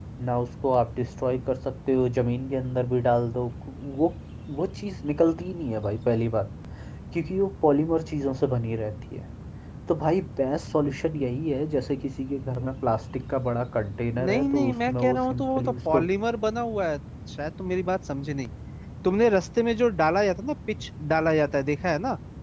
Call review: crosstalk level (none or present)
present